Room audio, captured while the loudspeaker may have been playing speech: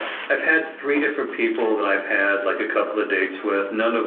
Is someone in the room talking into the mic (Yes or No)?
No